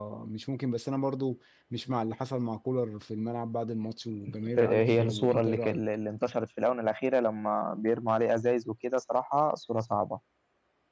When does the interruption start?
5 s

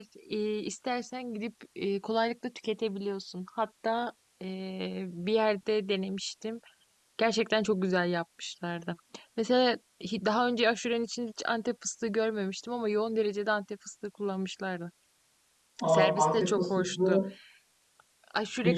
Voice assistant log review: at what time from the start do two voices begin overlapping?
16 s

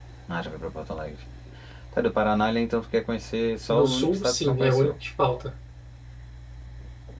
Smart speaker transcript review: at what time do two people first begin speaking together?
4 s

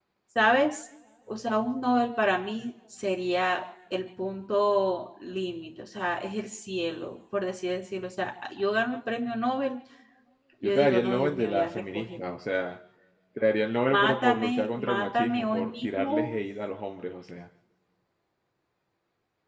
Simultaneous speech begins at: 11 s

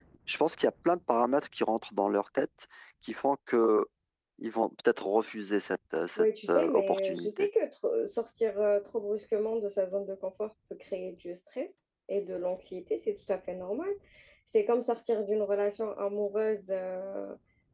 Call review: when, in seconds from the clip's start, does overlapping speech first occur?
6 s

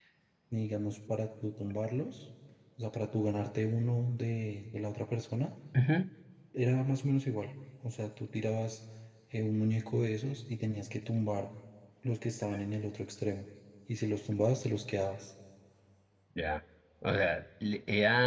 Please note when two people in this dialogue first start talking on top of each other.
none

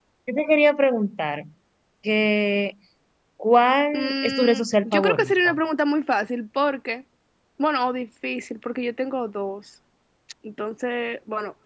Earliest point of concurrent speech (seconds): 4 s

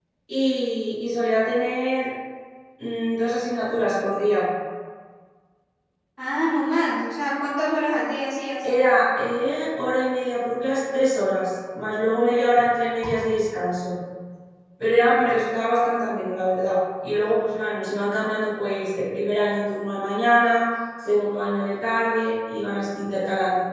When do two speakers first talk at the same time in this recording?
none

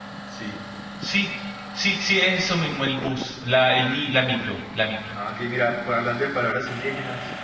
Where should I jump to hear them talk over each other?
none

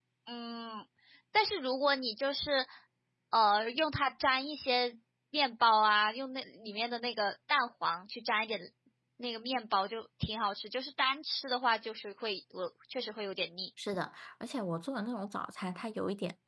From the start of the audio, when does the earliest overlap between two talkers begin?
none

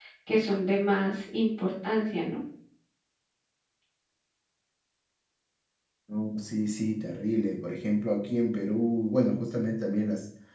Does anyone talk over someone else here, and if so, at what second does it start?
none

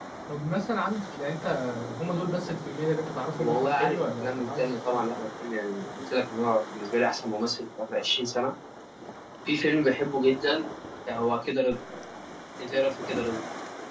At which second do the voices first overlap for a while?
3 s

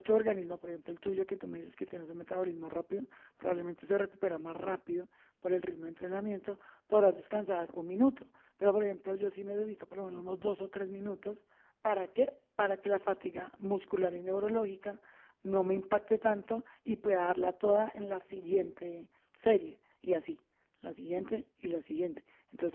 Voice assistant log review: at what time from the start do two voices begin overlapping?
none

